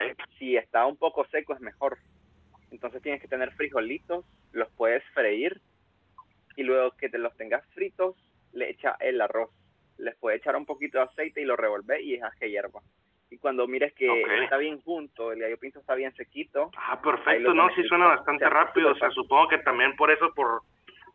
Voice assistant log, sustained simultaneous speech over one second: present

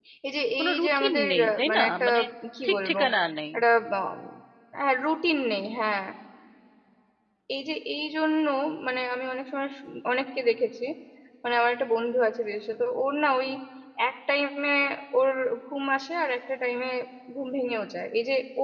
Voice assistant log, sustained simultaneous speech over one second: present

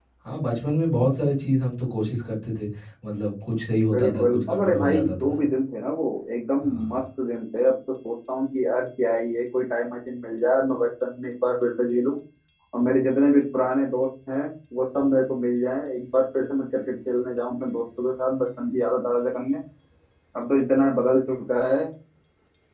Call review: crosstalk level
present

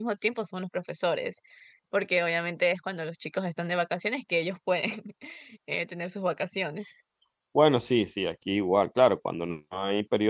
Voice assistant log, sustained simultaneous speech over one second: none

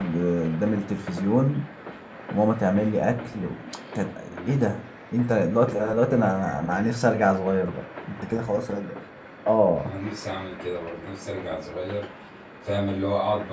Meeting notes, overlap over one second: none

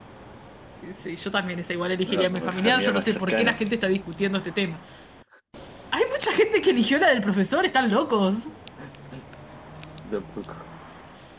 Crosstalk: present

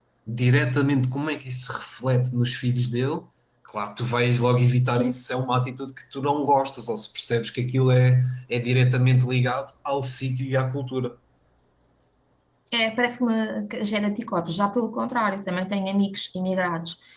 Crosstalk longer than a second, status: none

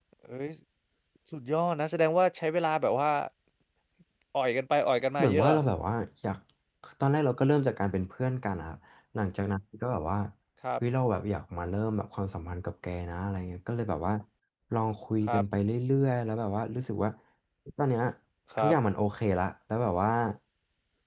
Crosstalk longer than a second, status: none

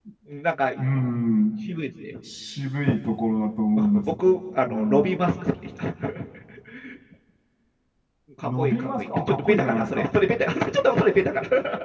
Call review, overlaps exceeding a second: present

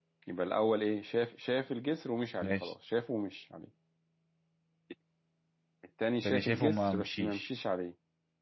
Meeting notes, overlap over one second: present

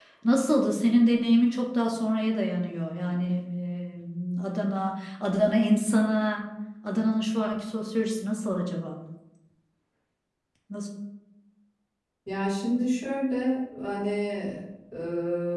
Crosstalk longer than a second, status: none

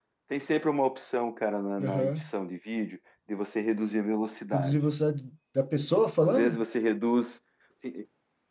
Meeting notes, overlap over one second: none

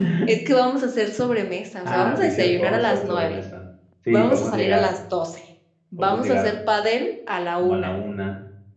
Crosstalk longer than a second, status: present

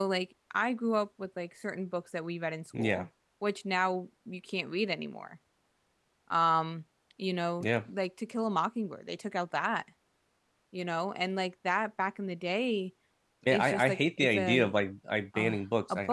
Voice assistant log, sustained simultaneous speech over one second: present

